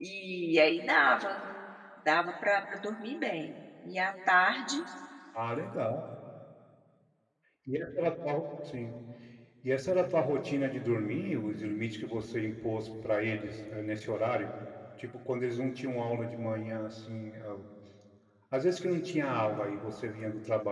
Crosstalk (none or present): none